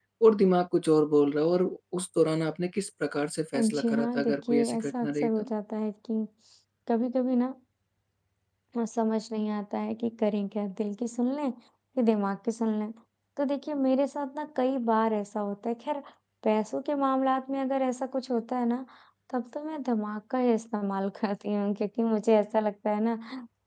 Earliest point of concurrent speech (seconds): 4 s

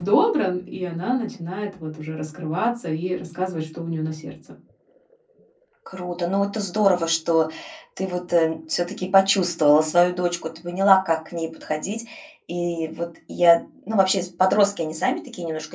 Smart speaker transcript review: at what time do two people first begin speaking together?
none

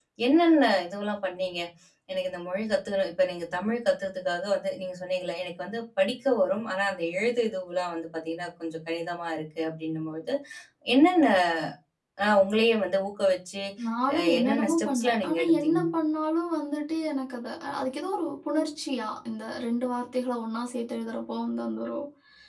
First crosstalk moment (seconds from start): 14 s

